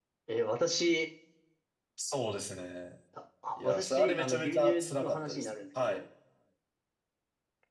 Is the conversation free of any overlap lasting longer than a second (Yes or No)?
No